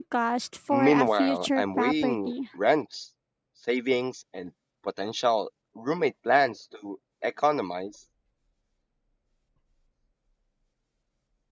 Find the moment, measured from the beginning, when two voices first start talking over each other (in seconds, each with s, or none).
0.7 s